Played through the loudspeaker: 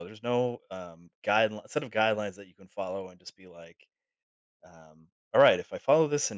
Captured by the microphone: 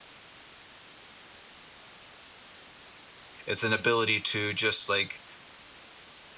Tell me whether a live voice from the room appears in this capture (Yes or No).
Yes